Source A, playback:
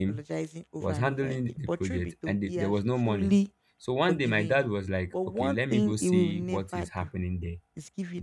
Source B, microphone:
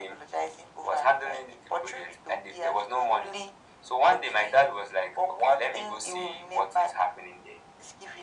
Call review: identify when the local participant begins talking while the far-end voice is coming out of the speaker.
none

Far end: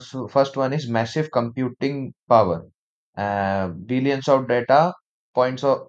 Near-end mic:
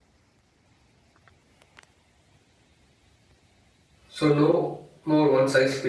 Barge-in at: 4.1 s

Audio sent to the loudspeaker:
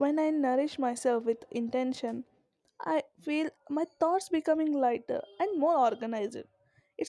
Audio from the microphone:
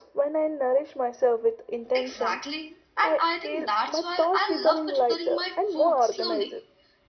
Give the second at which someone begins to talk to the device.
1.9 s

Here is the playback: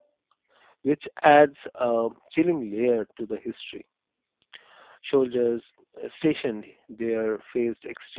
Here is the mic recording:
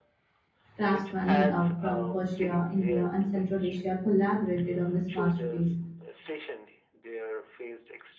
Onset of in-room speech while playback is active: 0.8 s

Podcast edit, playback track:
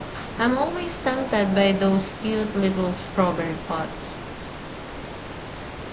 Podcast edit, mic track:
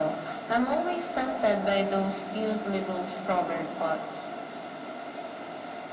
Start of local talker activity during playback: none

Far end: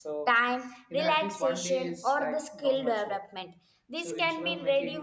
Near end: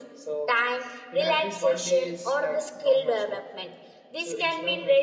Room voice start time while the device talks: none

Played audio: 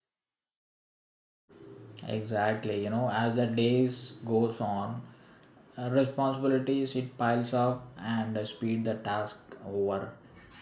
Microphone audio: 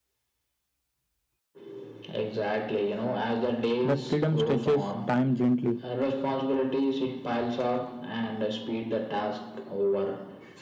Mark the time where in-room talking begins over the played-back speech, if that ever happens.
3.8 s

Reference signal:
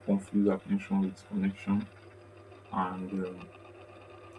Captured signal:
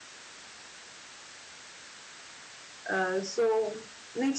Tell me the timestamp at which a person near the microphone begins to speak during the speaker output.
2.9 s

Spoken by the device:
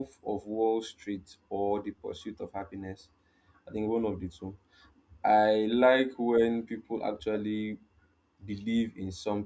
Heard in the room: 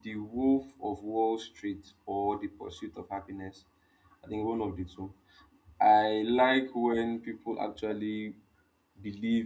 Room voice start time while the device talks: none

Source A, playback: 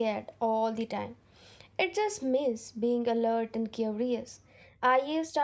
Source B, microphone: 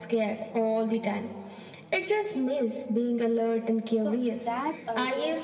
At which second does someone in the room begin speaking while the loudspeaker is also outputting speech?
3.9 s

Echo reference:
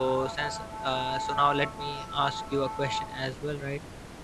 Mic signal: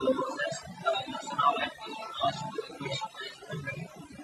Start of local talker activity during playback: none

